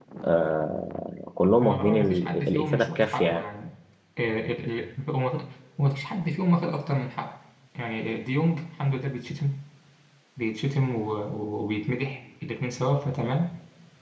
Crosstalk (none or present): present